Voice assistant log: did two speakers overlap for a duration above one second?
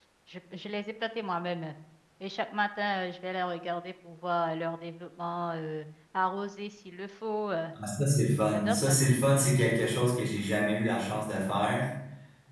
No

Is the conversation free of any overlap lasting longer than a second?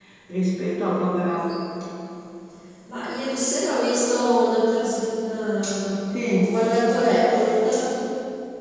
Yes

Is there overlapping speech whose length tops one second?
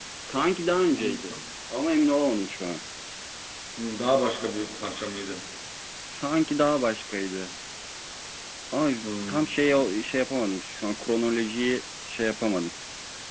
No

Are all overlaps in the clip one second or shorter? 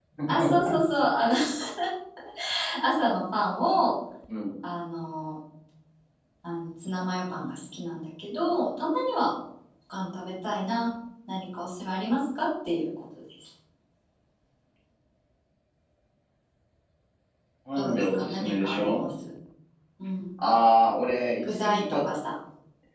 No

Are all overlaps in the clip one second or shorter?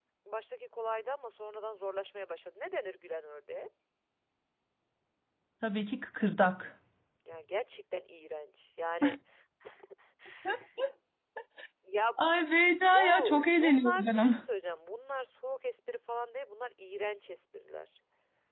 No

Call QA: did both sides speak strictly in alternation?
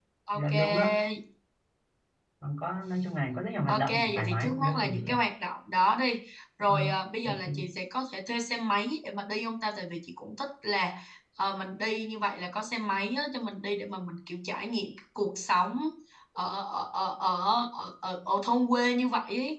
No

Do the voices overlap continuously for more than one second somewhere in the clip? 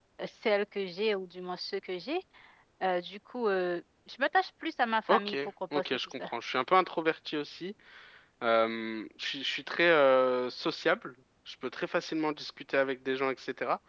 No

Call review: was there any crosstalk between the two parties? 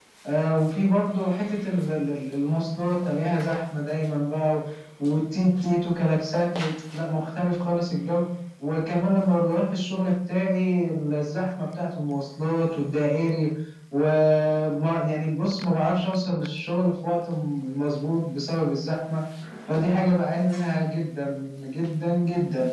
No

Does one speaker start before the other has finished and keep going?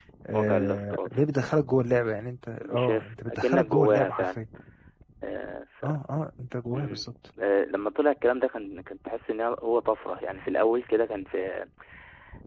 Yes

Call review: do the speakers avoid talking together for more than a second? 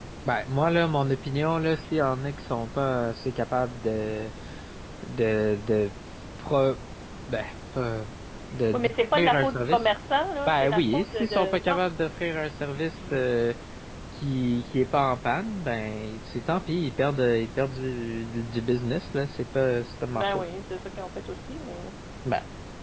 No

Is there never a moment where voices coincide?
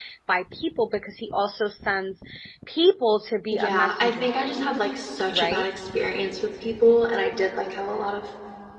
No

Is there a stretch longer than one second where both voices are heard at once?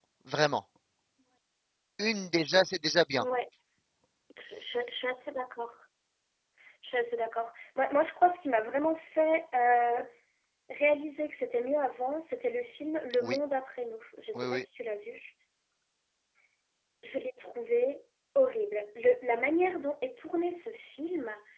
No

